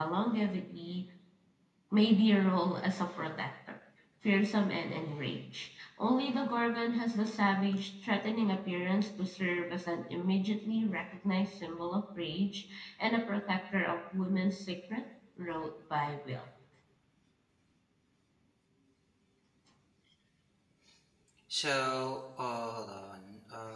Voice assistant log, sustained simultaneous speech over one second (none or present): none